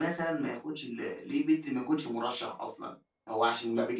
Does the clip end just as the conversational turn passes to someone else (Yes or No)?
No